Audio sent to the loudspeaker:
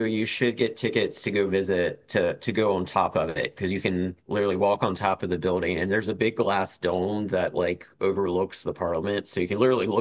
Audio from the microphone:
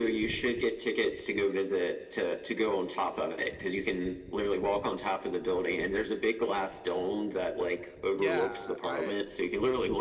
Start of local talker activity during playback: 8 s

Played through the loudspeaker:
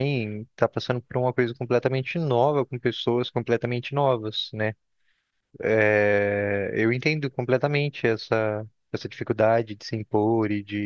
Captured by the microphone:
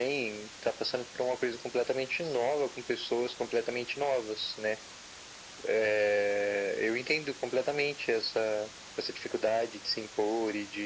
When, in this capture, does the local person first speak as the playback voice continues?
none

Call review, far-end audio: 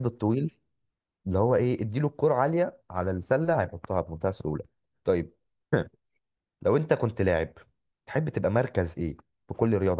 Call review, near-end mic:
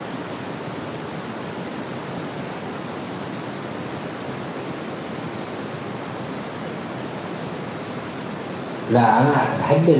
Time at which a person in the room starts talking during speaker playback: 9 s

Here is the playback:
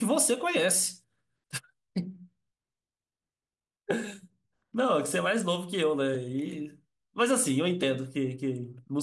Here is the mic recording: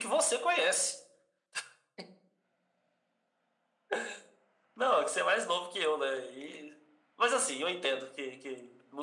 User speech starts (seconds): none

